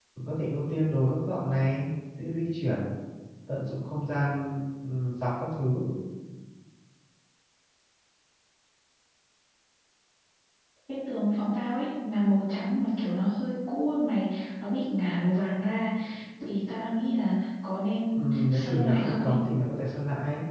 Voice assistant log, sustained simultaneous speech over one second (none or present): present